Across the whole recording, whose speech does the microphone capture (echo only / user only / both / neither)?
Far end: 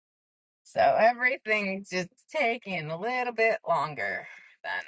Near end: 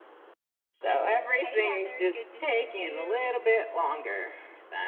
both